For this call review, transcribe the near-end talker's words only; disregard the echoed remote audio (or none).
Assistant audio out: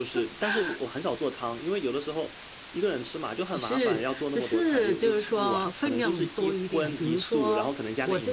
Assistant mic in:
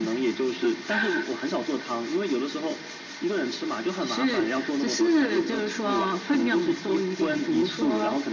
none